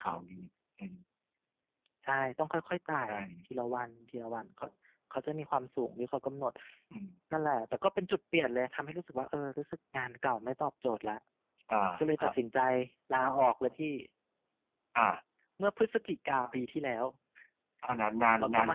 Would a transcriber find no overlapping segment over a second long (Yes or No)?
Yes